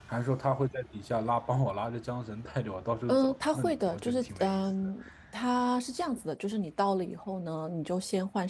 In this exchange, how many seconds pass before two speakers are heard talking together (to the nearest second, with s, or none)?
3 s